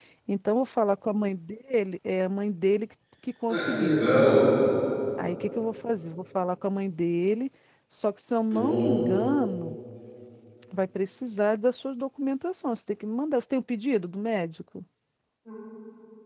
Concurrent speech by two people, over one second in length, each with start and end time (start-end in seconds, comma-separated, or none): none